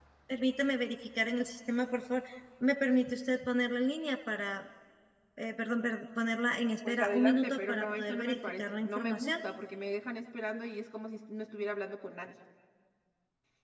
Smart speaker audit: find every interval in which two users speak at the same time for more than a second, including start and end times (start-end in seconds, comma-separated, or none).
6.9-9.3